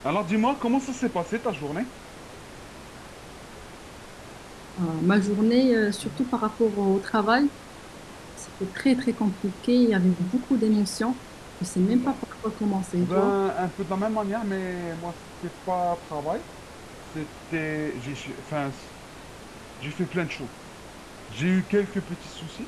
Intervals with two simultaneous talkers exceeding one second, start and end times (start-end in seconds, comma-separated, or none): none